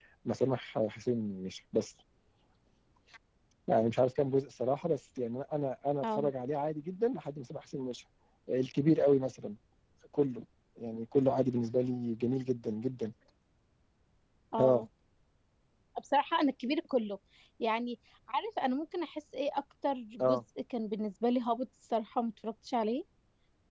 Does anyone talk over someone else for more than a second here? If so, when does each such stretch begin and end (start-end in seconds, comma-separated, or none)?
none